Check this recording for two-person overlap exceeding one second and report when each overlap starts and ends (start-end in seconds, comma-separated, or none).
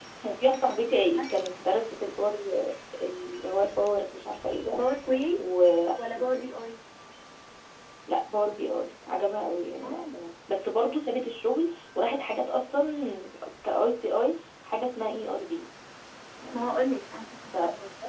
none